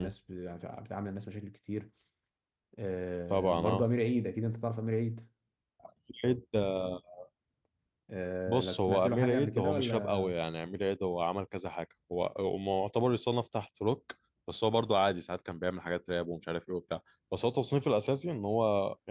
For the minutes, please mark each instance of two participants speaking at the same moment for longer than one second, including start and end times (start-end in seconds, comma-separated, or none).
8.5-10.3